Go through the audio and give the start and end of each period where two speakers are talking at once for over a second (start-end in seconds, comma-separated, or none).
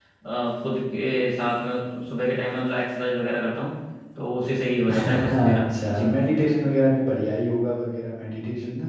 4.9-6.1